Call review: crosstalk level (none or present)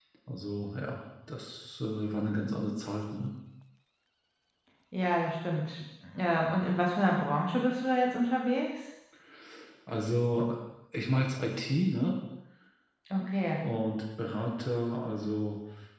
none